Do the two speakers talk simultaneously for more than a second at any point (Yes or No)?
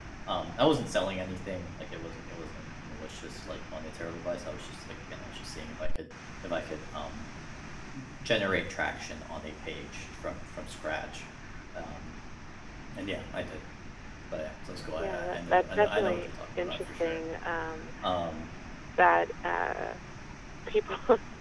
Yes